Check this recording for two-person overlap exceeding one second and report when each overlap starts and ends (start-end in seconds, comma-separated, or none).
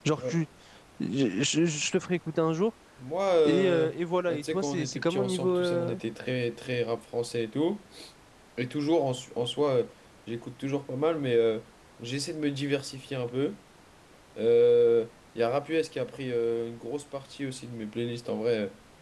4.3-6.0